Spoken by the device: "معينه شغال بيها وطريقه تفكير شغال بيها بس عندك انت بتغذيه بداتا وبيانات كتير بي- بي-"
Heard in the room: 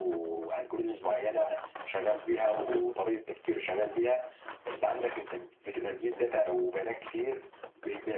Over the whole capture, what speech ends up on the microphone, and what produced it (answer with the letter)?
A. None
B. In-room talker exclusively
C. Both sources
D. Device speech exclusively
D